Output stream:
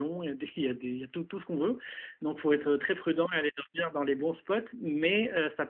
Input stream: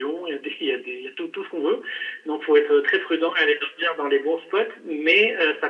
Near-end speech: none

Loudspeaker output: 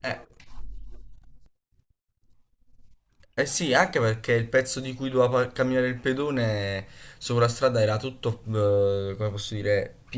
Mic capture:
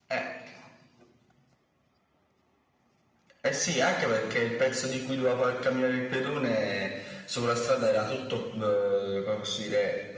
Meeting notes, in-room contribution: none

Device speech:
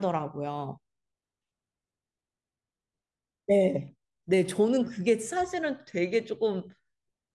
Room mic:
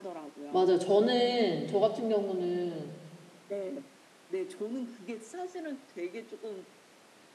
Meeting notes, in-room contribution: present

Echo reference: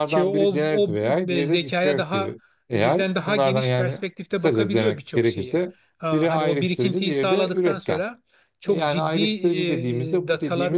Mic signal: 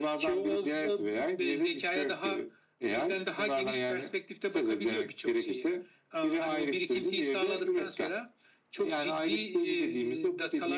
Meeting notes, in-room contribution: none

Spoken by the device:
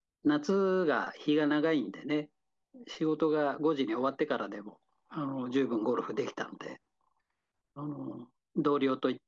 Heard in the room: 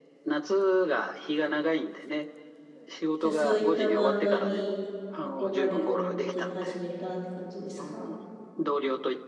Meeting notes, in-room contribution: present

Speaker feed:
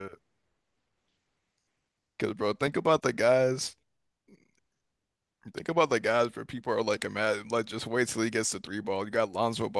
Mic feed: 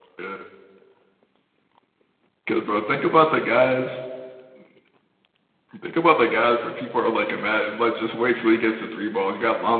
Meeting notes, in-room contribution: none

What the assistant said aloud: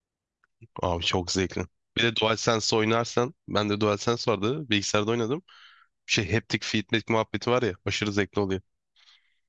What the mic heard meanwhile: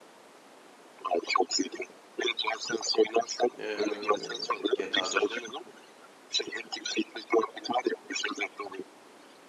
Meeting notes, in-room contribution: present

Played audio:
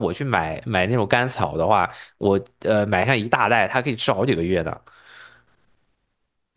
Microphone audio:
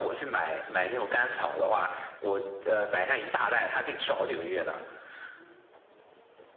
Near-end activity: none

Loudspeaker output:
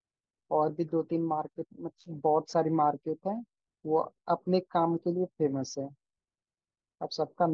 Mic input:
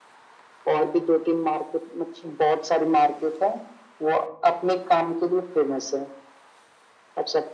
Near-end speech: none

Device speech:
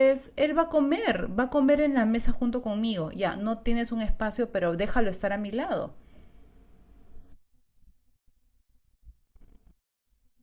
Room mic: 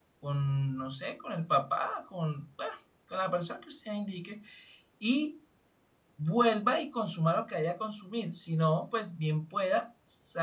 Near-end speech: present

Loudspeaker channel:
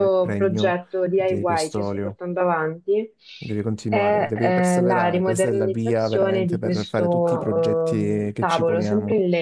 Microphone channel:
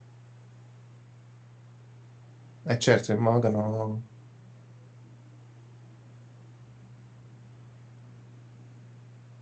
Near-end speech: present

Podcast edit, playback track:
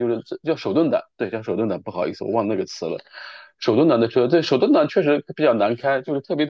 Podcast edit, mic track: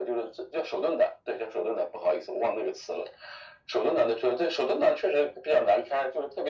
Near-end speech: none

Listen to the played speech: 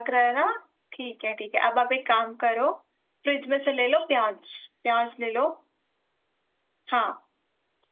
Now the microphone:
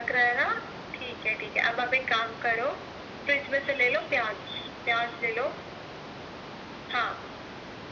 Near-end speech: none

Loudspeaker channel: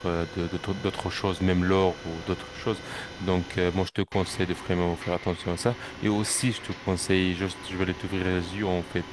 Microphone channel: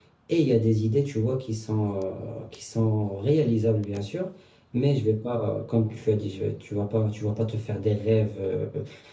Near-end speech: present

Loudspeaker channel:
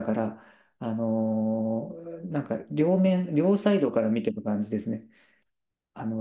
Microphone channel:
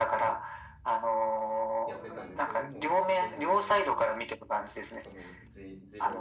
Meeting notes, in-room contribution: present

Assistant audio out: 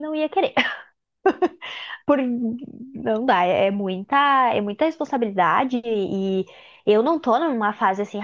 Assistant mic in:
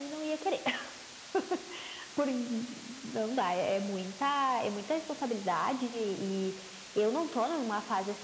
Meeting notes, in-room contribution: none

